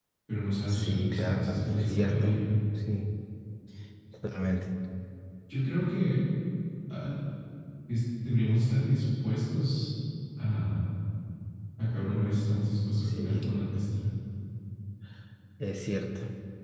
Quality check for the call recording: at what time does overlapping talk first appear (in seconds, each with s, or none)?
0.7 s